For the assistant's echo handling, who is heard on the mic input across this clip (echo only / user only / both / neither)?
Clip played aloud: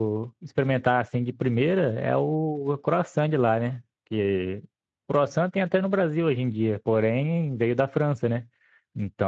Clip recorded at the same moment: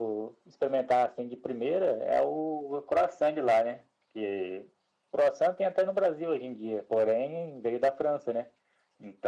echo only